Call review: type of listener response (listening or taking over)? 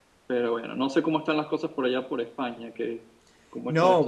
taking over